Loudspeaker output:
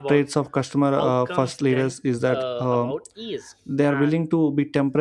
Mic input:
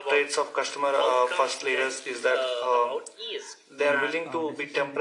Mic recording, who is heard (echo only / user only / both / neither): both